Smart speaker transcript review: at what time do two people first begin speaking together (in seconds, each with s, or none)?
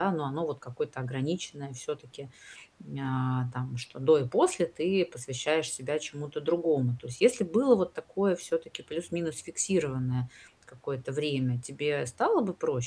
none